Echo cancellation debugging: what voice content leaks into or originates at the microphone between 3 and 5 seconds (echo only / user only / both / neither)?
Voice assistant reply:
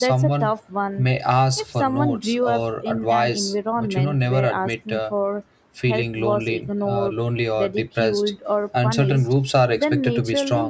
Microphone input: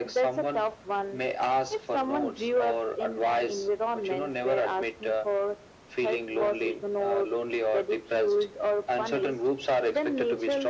echo only